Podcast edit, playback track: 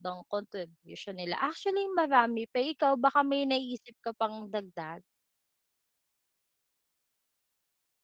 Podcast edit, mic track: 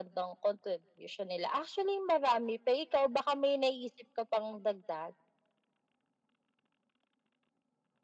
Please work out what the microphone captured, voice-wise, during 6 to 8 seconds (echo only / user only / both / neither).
neither